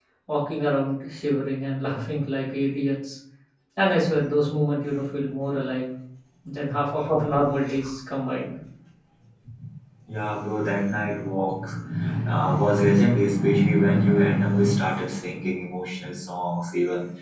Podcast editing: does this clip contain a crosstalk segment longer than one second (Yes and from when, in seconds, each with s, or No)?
No